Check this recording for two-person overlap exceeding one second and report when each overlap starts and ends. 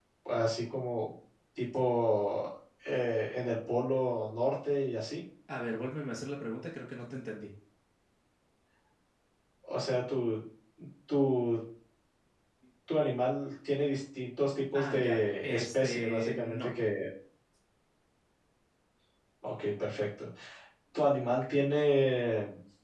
14.7-16.7

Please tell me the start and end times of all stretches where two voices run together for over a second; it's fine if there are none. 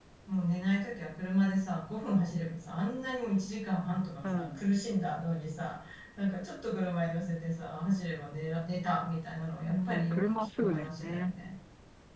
9.6-11.3

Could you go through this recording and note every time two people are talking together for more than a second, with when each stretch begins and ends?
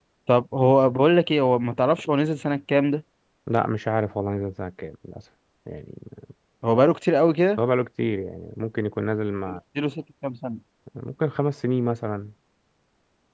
none

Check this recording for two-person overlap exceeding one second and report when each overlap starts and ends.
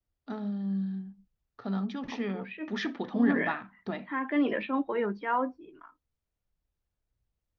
2.1-3.6

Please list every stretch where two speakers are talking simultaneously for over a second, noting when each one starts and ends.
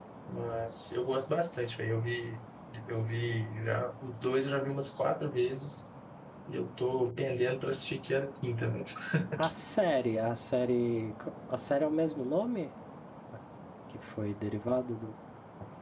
none

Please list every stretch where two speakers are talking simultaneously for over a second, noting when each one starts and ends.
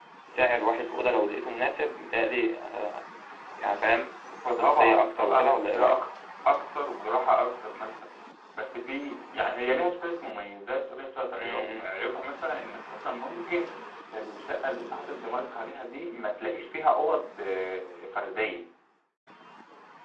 4.6-6.0

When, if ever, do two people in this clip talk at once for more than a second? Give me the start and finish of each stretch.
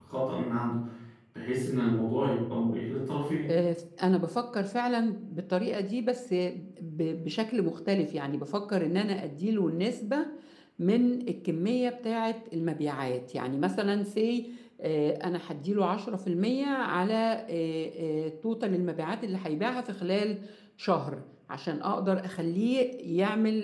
none

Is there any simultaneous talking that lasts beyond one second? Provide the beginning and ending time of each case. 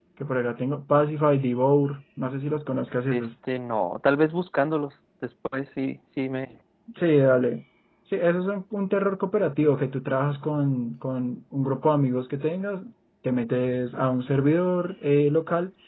none

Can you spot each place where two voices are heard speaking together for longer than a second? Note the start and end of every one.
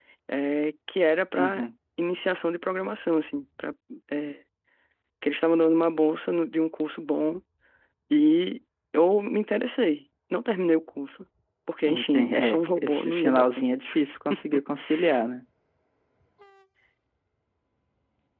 11.9-13.7

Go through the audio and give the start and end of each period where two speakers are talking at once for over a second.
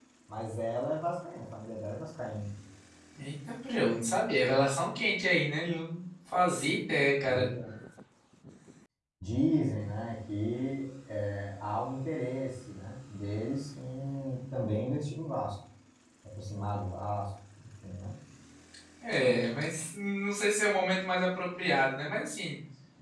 none

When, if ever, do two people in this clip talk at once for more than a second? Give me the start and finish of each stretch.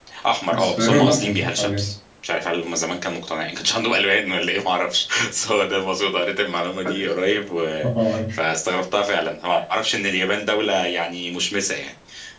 0.5-1.9

